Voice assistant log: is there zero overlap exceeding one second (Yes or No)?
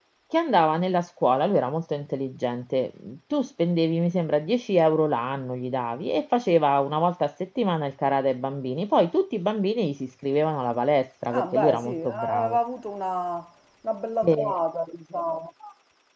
No